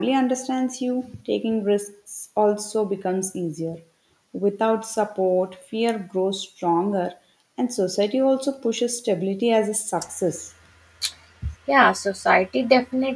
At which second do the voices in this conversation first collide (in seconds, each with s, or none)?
none